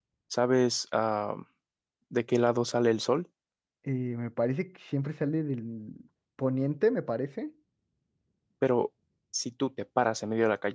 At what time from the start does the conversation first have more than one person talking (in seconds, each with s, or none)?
none